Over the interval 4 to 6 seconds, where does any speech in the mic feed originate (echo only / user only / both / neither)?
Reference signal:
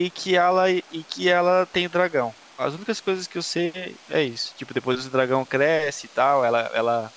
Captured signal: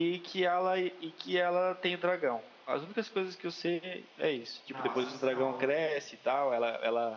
both